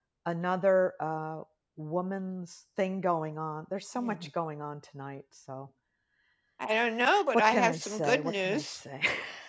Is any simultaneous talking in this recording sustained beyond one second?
Yes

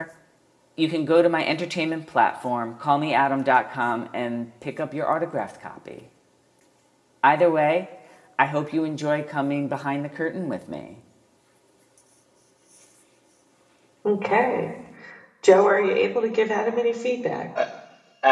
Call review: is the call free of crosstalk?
Yes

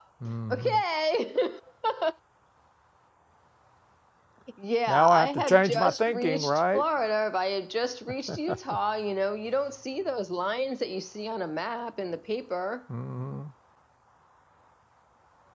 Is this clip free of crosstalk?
No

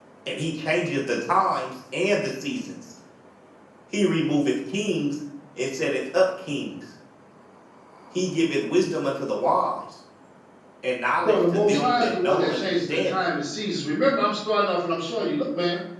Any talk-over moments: Yes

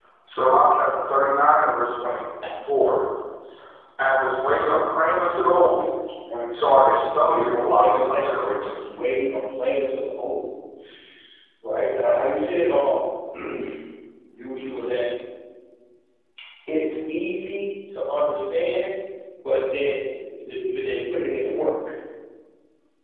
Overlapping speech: Yes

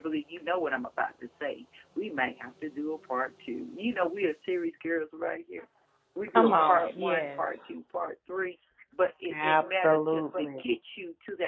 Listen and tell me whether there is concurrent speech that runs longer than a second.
Yes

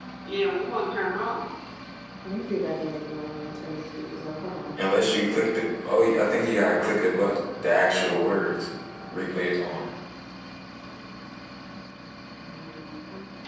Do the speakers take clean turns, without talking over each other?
Yes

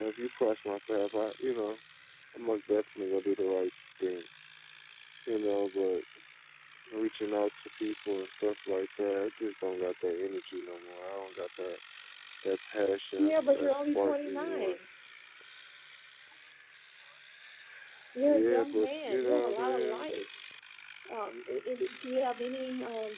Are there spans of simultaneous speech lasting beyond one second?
Yes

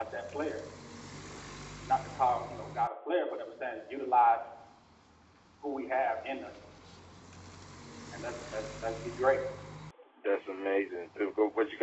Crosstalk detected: No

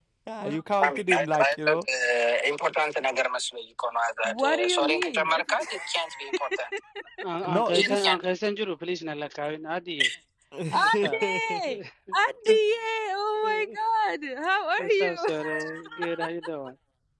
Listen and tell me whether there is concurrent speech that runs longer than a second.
Yes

